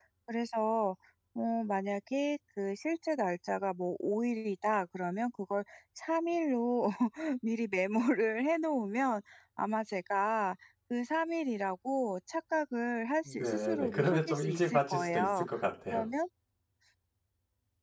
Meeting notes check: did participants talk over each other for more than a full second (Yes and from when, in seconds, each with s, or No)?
Yes, from 13.2 s